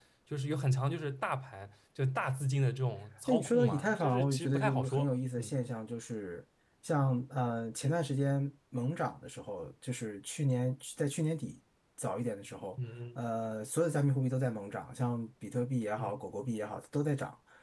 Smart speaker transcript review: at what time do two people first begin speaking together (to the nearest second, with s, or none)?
3 s